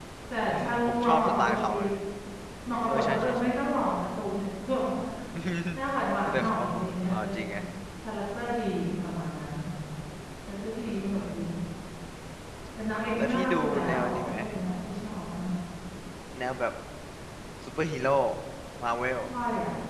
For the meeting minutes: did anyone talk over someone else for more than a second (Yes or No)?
Yes